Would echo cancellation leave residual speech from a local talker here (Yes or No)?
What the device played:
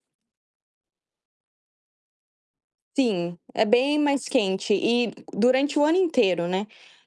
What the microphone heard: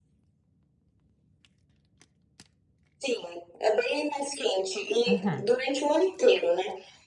Yes